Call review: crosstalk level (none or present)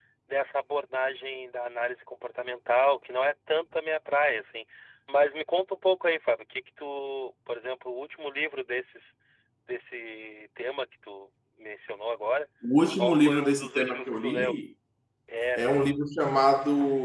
present